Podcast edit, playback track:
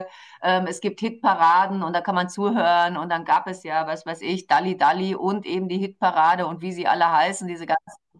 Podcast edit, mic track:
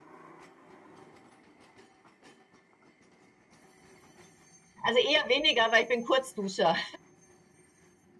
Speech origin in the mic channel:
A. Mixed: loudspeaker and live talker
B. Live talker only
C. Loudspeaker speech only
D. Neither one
B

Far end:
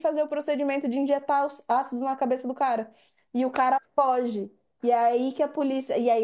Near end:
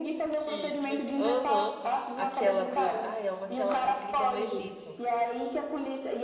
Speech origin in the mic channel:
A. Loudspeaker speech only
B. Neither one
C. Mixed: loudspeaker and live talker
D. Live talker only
C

